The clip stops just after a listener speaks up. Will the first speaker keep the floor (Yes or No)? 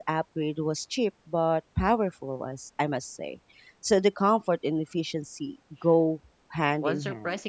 No